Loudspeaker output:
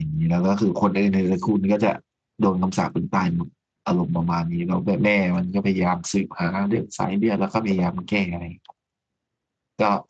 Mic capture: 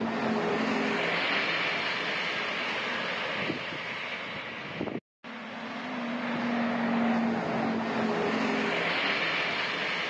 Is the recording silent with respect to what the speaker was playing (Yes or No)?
Yes